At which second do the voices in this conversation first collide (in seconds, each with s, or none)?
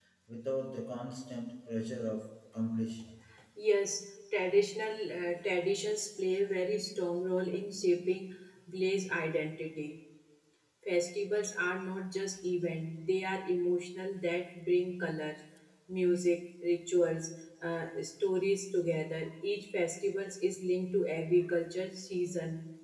none